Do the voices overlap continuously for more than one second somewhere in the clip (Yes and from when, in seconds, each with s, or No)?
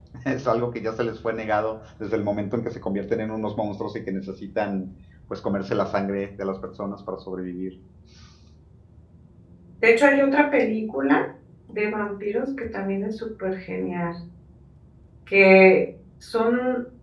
No